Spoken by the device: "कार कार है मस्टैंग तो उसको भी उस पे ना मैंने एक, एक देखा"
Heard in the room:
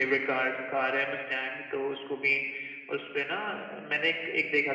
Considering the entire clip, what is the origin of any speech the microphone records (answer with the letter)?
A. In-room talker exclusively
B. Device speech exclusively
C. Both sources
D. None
B